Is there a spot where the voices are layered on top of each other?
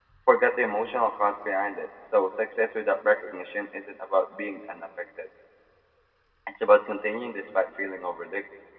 No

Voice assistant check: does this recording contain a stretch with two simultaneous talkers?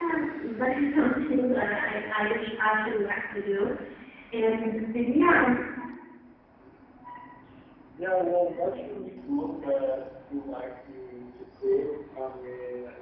No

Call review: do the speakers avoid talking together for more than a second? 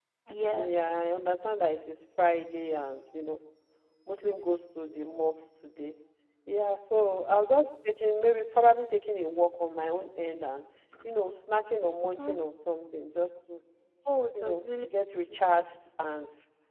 Yes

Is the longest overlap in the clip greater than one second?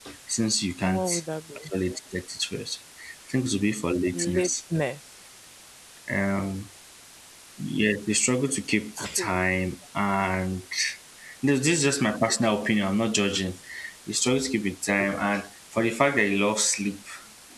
No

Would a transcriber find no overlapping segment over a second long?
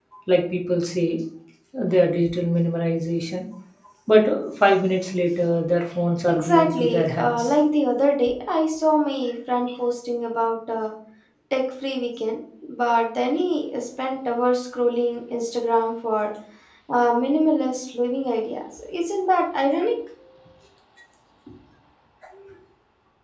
No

